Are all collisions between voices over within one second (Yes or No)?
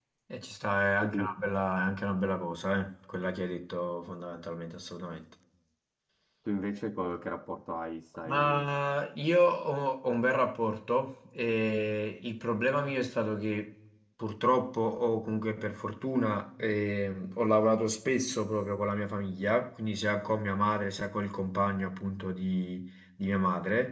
Yes